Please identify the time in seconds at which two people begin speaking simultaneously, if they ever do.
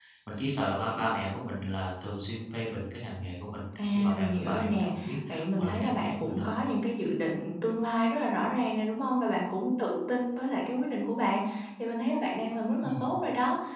4 s

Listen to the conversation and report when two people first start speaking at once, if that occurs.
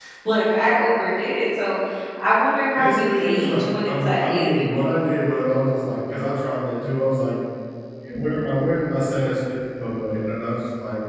3 s

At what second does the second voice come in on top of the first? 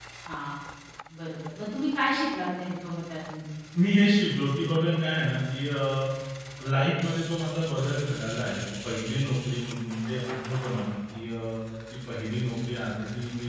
none

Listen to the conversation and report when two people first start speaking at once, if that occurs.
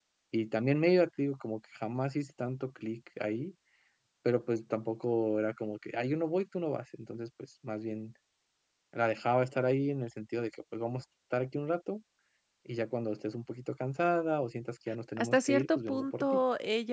15 s

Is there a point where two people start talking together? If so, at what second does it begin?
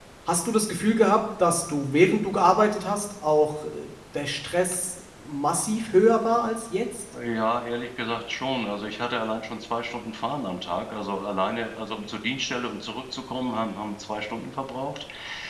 none

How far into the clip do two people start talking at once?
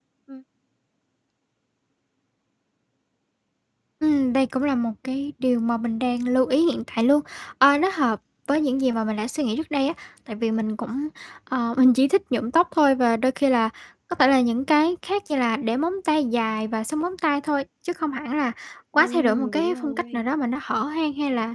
19 s

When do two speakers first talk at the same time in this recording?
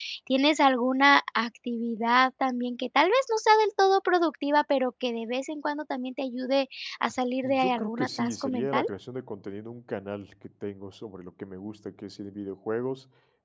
7 s

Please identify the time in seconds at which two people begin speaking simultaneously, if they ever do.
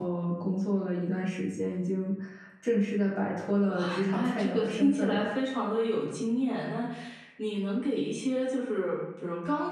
4 s

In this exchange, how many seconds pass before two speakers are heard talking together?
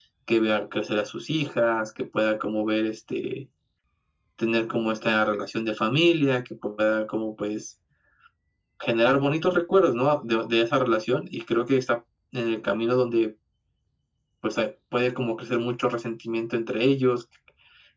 none

